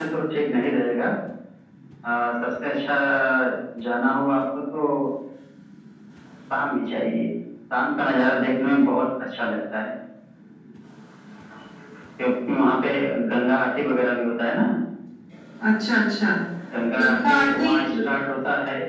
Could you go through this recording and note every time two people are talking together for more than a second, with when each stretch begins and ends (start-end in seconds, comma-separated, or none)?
17.0-18.3